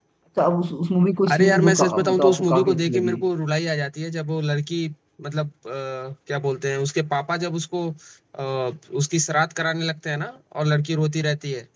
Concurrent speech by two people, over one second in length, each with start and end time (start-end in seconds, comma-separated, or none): 1.3-3.2